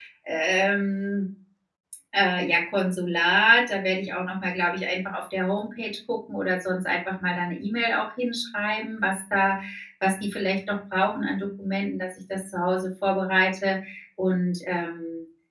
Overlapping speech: No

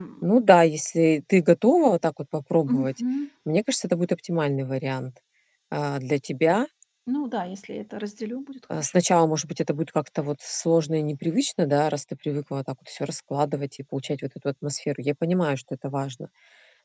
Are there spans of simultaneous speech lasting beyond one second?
No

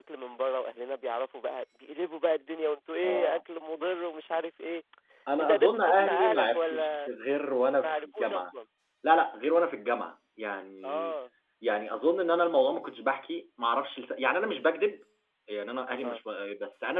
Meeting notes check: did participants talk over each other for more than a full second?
Yes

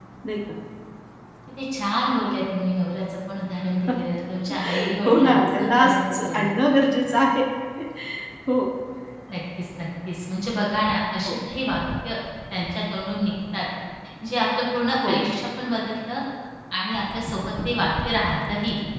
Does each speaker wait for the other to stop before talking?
No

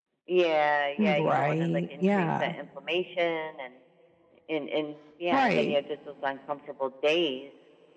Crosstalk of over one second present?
Yes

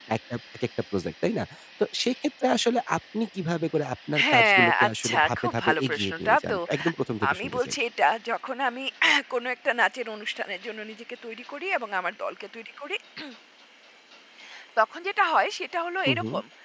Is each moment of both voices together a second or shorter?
No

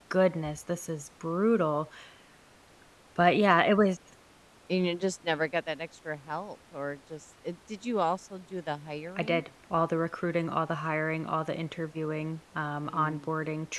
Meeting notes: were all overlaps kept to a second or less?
Yes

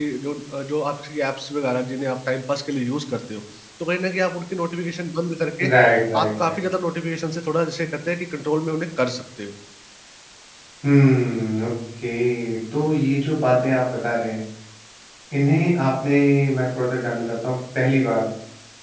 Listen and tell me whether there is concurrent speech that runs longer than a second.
No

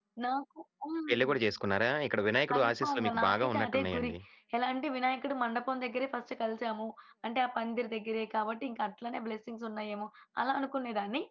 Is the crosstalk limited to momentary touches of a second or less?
No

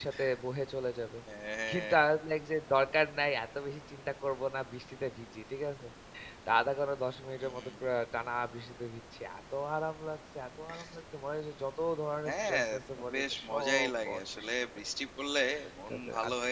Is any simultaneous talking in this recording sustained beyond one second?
Yes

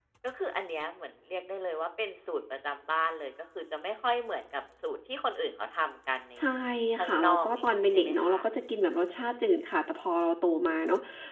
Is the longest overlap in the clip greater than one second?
Yes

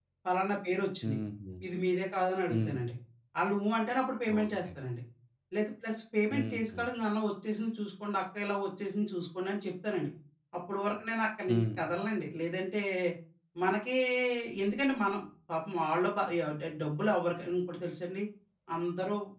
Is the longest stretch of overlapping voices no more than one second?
Yes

